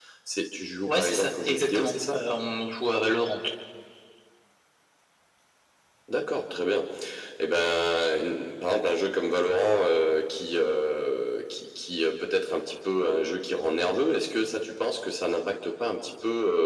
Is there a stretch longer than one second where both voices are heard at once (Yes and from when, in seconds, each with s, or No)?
Yes, from 0.9 s